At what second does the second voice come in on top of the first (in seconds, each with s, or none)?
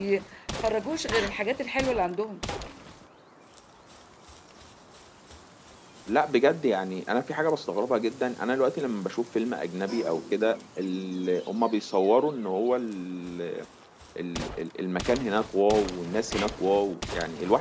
none